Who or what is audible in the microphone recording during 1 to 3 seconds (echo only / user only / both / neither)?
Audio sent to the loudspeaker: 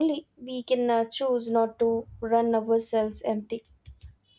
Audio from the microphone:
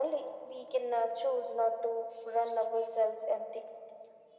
echo only